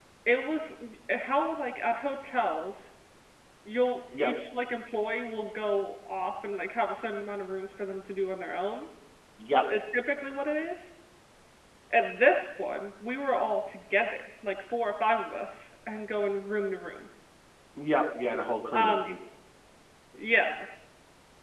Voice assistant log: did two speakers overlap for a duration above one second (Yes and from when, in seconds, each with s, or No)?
No